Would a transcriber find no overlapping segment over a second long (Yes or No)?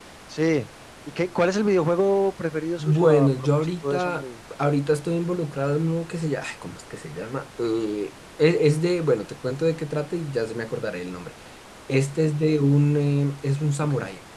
No